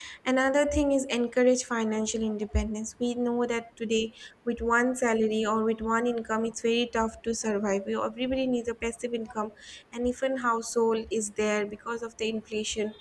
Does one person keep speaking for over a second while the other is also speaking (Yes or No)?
No